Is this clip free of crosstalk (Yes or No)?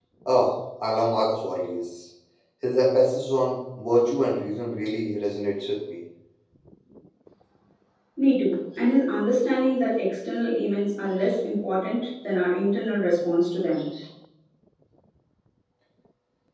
Yes